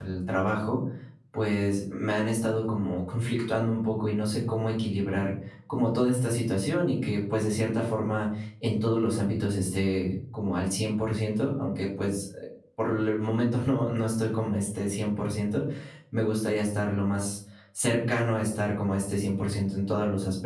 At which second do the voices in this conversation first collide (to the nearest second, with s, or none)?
none